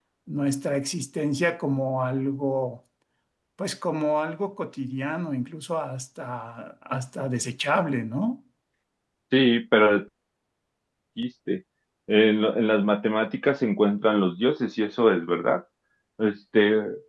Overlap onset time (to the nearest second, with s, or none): none